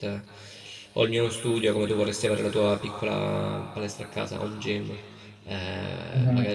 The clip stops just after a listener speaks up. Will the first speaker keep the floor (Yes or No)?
Yes